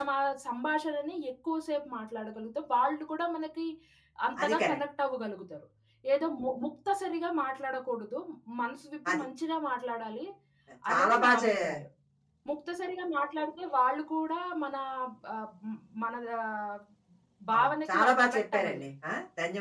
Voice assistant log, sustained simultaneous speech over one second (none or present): present